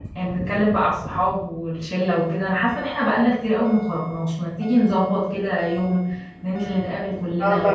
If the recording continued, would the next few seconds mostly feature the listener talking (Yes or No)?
No